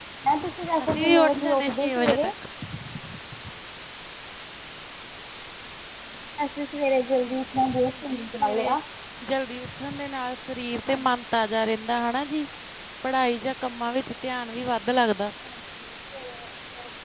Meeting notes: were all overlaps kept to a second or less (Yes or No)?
No